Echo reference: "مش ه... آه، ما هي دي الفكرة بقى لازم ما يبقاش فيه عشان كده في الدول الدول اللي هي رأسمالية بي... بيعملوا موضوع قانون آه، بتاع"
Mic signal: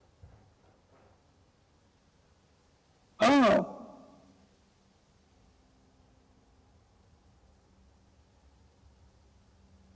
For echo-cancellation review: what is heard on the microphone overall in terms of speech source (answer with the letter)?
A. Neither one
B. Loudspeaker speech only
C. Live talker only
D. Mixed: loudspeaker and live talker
C